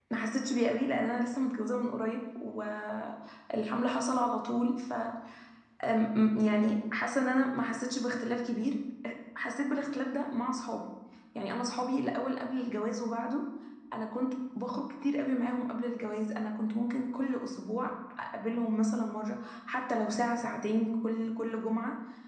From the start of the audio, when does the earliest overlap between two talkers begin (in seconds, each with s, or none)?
none